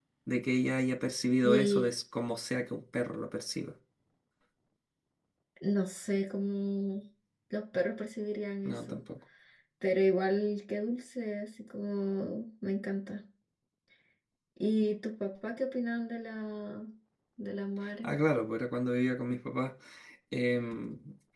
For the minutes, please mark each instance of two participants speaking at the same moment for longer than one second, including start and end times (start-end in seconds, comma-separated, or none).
none